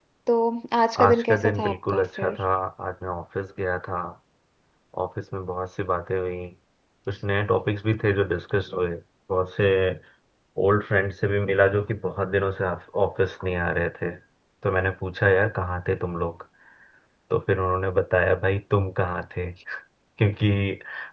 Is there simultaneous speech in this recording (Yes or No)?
Yes